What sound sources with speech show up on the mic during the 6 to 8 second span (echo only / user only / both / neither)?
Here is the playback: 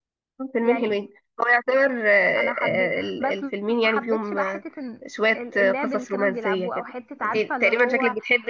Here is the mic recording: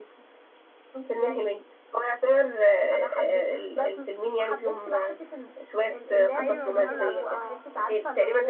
both